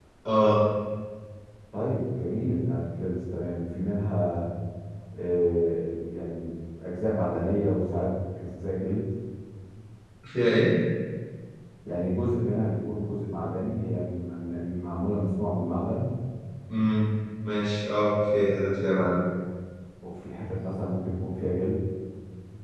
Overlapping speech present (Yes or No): No